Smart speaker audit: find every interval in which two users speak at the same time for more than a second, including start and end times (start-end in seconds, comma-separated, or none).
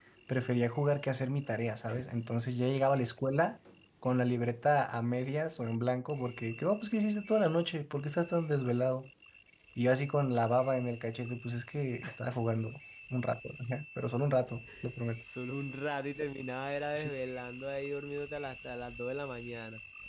none